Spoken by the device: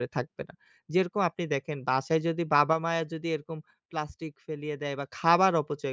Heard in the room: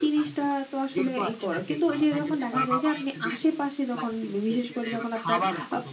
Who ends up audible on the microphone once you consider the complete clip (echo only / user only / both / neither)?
both